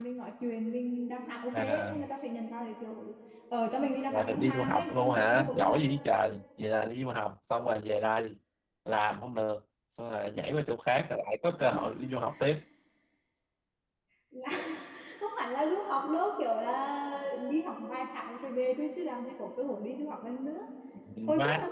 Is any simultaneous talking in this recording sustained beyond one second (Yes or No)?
Yes